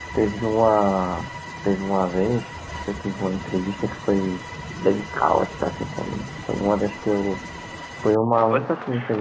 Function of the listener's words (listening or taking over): listening